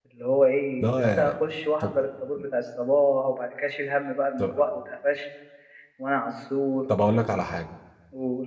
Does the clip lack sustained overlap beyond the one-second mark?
Yes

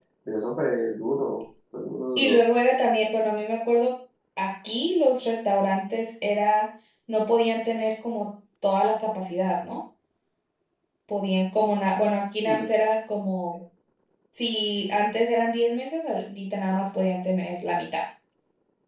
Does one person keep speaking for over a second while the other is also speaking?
No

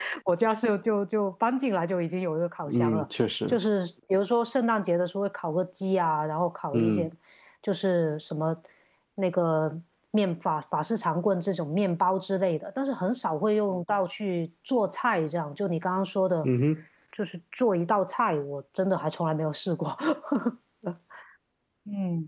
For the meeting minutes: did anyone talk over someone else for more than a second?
No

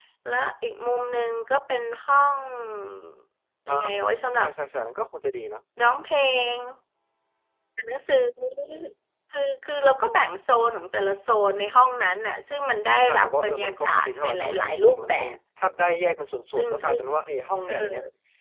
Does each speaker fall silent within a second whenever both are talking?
No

